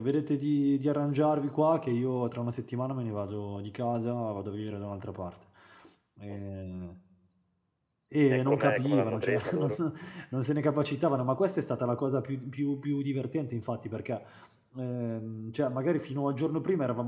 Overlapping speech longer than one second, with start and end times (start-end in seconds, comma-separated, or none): 8.3-9.7